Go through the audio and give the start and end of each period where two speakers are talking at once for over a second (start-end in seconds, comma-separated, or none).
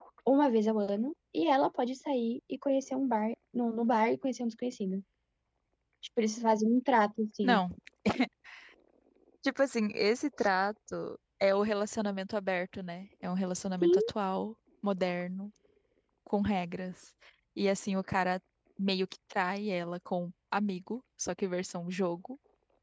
none